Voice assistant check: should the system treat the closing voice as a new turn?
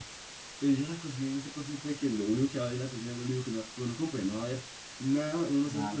Yes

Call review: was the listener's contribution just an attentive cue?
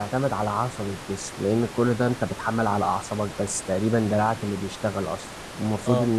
Yes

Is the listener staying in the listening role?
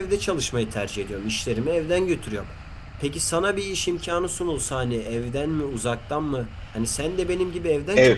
No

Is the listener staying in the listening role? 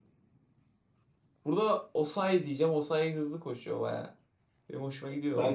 No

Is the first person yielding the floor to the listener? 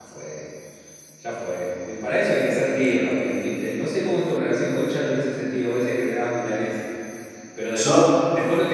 No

